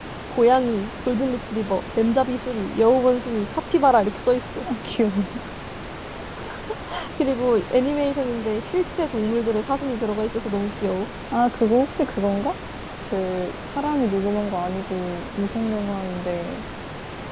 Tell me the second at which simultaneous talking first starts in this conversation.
none

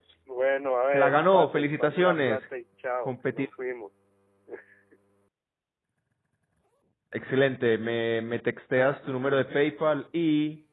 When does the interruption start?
0.9 s

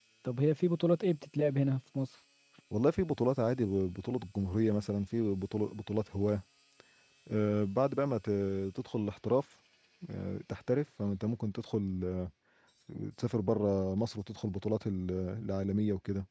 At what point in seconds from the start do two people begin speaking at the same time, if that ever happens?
none

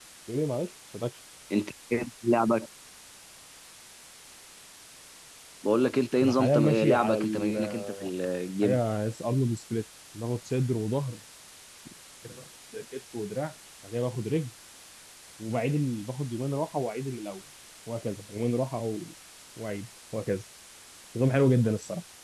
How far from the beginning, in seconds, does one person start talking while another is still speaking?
6.2 s

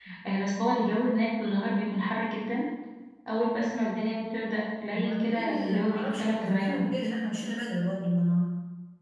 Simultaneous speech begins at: 4.9 s

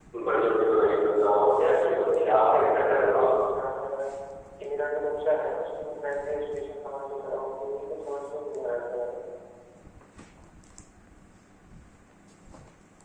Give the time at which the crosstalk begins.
1.6 s

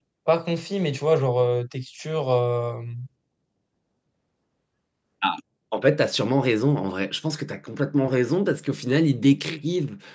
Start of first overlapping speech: none

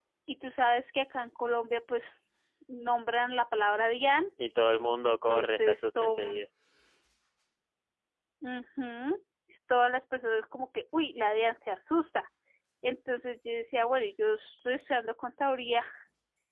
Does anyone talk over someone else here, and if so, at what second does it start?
5.1 s

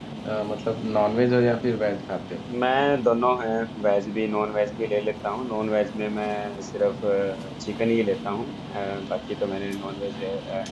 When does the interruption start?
none

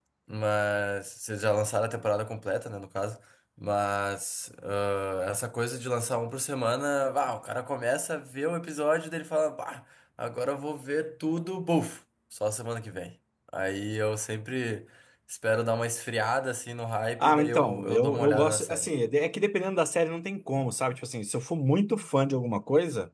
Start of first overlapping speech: 17.2 s

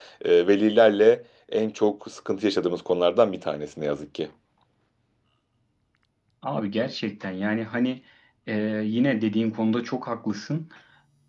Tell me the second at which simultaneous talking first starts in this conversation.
none

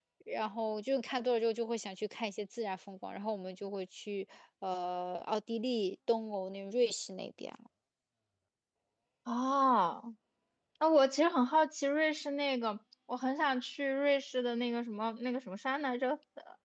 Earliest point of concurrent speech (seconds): none

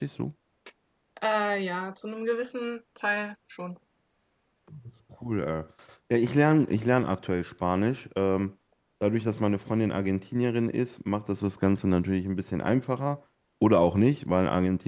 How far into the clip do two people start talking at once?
none

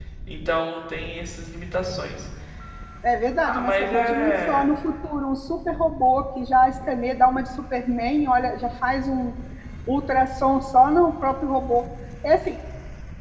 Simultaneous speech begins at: 3.4 s

